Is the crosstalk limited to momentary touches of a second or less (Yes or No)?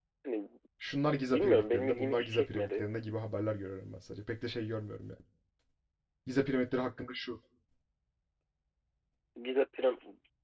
No